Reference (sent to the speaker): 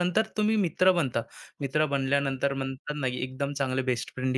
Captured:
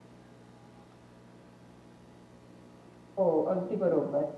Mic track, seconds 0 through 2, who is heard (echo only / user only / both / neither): neither